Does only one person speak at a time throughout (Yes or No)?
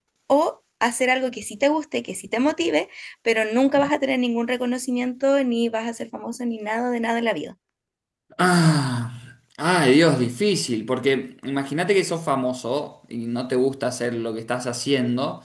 Yes